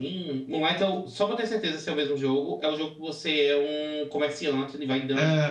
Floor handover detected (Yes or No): No